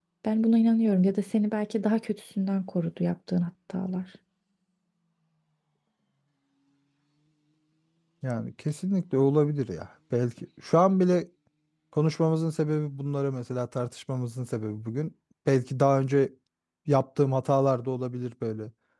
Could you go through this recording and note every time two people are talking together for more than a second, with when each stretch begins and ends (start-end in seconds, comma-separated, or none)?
none